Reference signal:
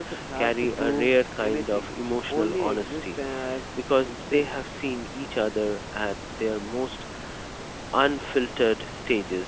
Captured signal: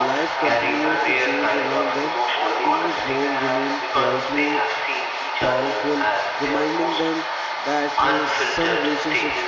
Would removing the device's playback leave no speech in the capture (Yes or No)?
No